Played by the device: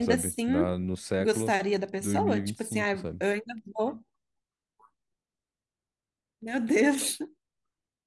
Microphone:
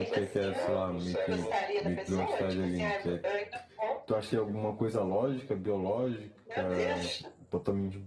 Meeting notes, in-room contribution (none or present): present